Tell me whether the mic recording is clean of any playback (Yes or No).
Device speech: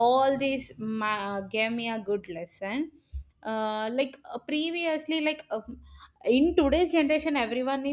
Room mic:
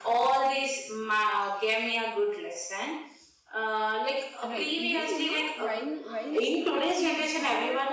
No